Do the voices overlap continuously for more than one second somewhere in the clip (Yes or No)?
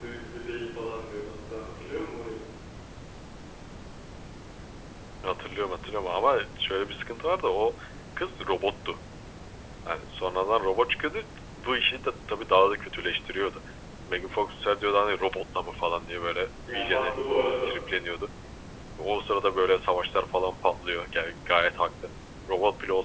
No